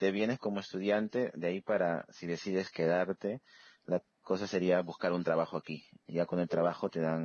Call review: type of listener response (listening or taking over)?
listening